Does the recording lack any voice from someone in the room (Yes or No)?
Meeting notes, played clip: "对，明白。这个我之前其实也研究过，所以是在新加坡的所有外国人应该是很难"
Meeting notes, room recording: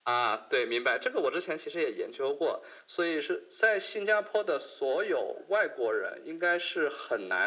Yes